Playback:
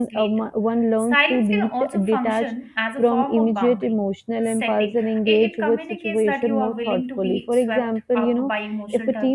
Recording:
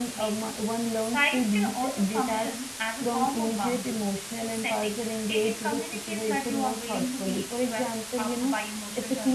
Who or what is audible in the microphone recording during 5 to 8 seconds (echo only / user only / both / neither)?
echo only